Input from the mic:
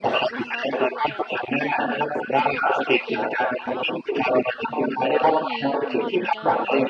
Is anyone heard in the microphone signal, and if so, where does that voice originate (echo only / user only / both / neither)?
both